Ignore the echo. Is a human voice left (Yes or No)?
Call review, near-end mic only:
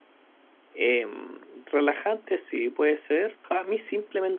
Yes